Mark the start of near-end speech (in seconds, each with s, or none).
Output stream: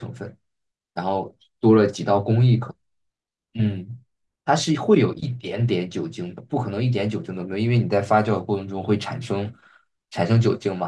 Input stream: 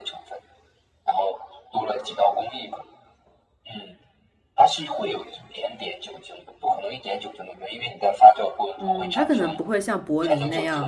8.8 s